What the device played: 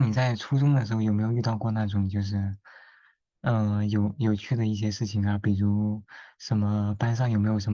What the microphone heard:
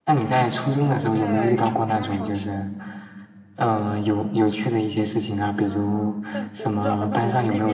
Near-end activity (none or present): present